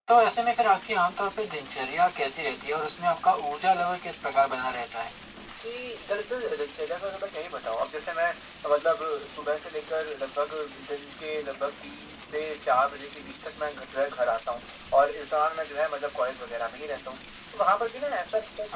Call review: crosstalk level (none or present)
none